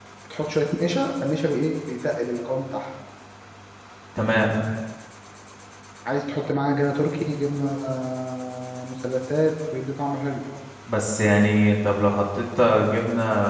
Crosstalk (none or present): none